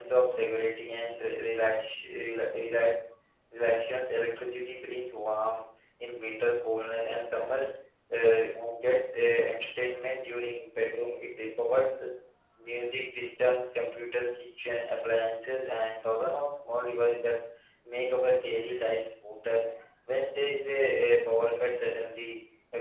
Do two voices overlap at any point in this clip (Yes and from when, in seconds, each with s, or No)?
No